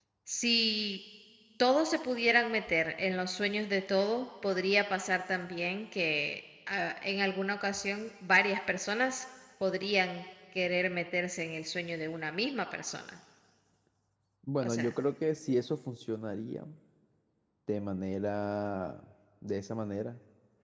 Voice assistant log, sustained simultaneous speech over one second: none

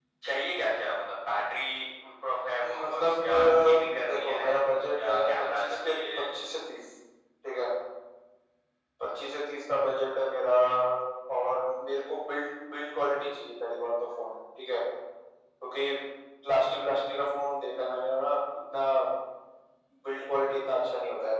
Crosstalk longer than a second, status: present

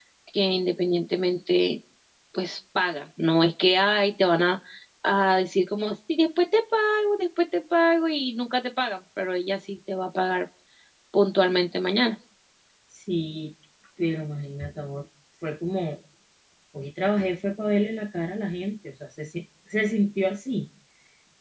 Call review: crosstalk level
none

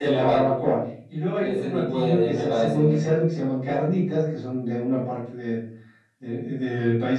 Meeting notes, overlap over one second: present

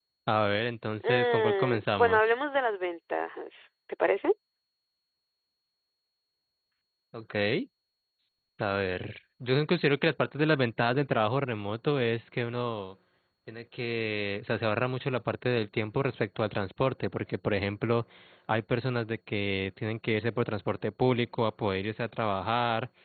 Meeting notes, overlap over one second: present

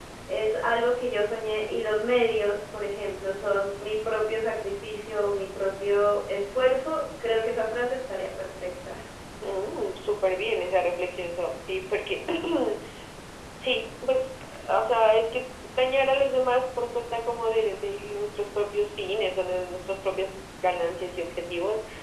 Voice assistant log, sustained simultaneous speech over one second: none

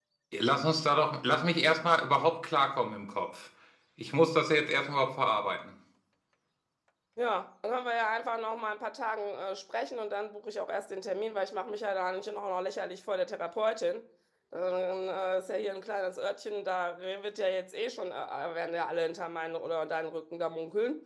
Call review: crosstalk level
none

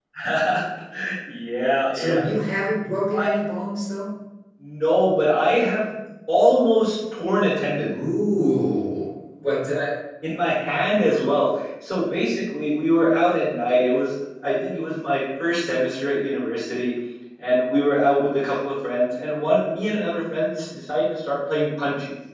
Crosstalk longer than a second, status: none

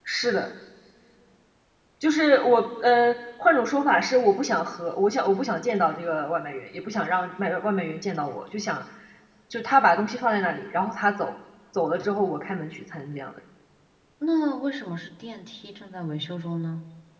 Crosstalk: none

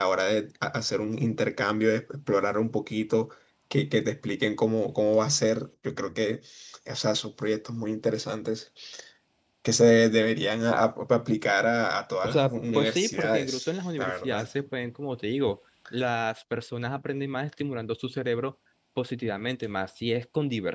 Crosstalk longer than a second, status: present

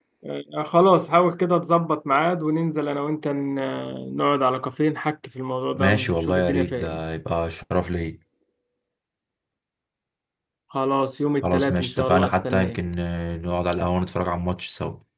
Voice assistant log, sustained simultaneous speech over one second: present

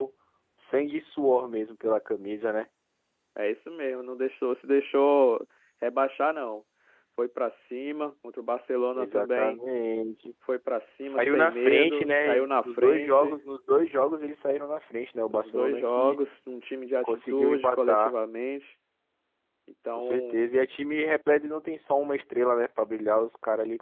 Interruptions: present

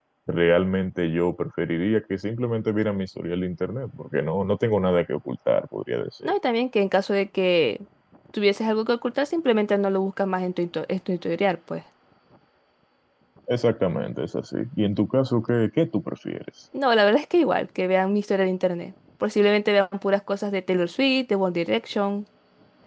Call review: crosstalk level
none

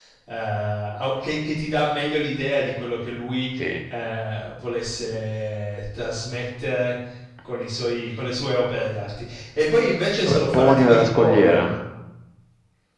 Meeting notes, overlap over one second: present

